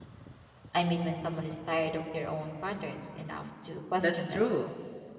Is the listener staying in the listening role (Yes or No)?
No